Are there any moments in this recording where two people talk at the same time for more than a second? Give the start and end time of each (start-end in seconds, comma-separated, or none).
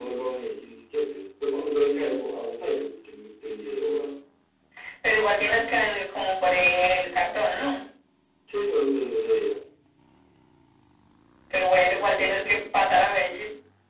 none